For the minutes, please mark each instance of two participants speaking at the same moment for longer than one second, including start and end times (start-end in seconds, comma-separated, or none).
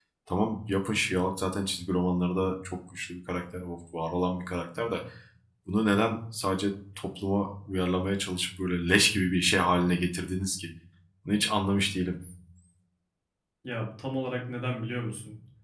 none